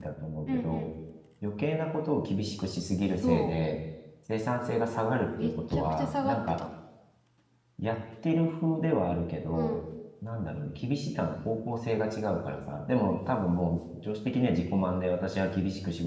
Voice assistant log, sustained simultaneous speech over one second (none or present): present